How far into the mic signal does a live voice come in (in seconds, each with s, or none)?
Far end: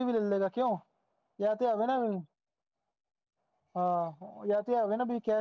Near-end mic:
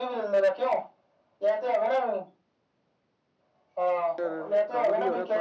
4.2 s